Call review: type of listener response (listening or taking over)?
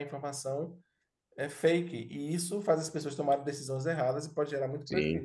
taking over